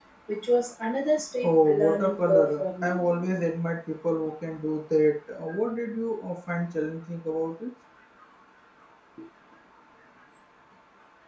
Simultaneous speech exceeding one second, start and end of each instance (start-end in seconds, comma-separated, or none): 1.4-3.0